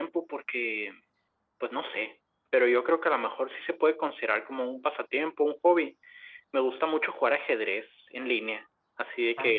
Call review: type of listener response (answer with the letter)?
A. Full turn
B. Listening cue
B